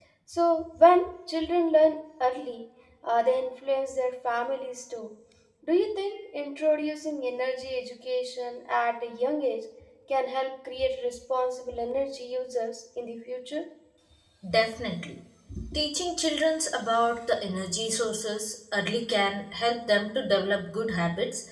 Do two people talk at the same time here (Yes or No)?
No